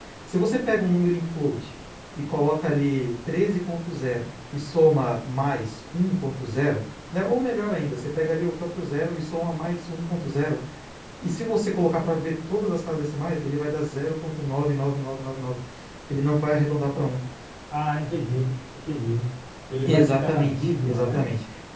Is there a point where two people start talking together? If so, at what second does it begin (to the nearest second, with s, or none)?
20 s